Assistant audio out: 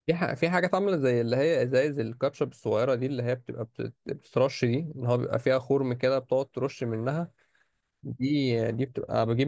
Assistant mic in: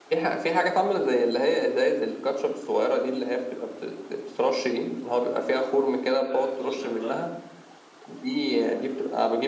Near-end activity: present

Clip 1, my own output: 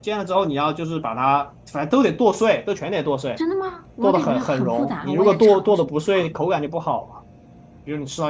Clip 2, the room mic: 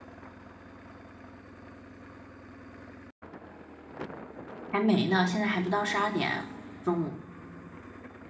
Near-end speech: present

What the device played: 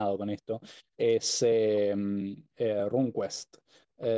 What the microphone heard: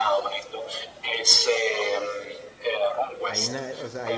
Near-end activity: present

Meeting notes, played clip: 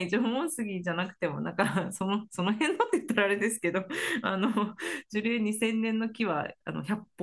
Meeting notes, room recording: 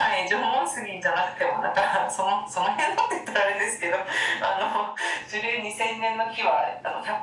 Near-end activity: none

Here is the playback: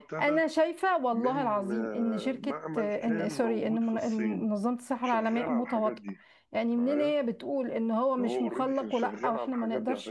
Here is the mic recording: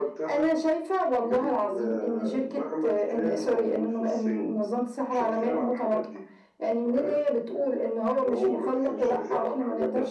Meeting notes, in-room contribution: none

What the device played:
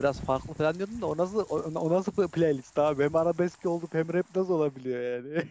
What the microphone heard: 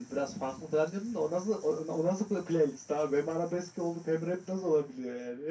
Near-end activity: none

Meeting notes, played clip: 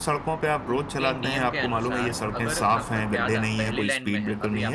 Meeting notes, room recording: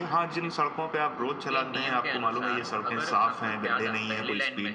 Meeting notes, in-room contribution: none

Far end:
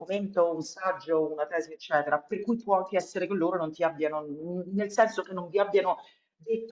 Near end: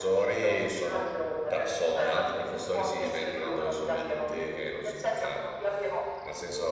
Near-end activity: present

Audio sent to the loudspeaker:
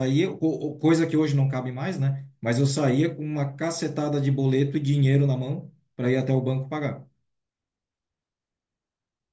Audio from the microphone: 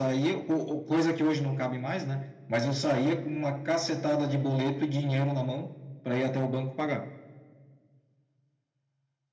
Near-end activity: none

